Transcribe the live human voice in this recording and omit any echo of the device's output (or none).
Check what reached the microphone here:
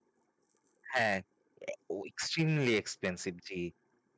হ্যাঁ, ও এক্সট্রিমলি এক্সপেনসিভ জি।